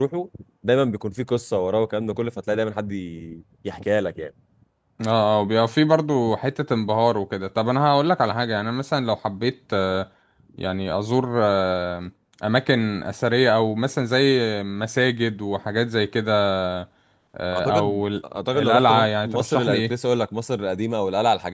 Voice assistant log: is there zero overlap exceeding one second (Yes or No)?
No